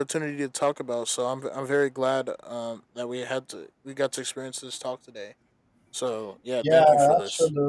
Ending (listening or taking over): taking over